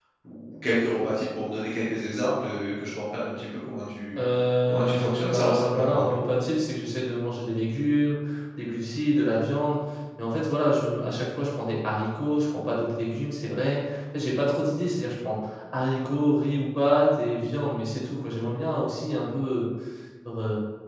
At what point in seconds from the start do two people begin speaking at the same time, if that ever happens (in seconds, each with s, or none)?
4.7 s